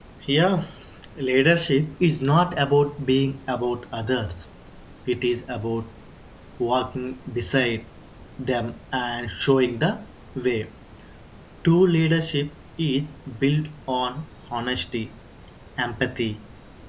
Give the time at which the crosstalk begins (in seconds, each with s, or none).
none